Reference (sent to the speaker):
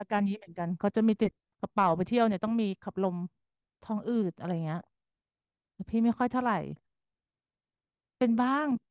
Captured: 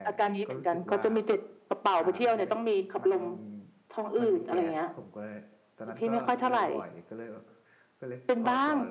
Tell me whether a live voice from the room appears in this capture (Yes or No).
Yes